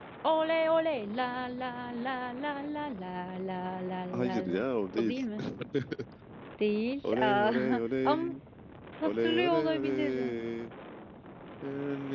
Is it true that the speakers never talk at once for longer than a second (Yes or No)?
No